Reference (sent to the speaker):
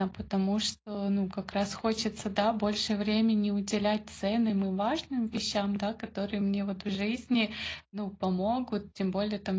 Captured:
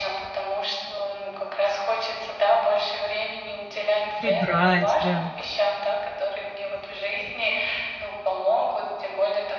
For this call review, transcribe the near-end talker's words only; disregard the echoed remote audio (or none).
Прибрать, да.